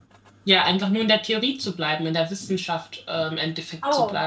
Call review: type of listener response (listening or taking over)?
taking over